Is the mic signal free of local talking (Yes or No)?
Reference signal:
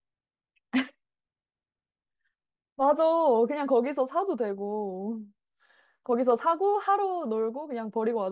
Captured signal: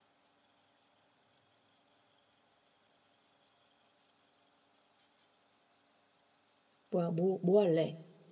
No